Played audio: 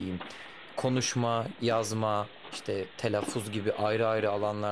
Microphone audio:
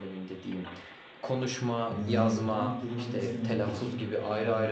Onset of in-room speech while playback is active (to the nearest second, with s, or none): 2 s